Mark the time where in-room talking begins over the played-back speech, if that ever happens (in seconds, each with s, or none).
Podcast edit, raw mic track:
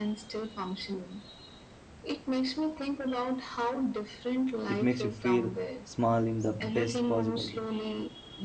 4.7 s